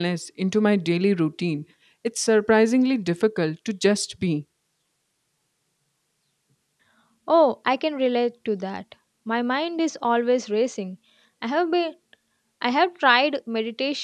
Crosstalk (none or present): none